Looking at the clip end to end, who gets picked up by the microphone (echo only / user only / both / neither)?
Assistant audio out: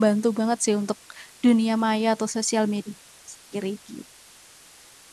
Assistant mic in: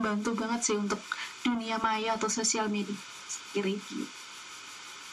echo only